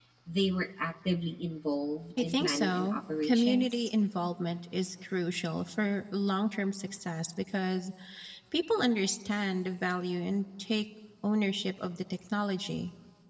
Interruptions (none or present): present